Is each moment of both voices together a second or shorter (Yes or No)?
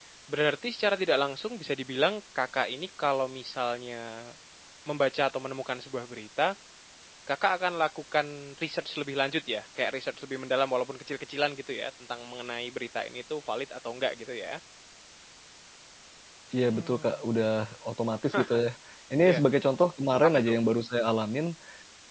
Yes